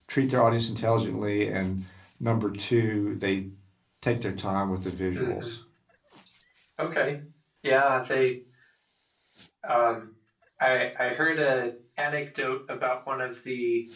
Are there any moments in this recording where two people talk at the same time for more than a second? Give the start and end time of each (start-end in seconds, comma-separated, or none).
none